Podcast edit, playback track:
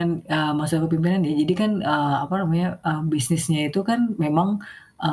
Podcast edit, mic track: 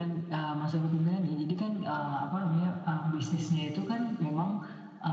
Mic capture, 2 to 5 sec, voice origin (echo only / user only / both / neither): echo only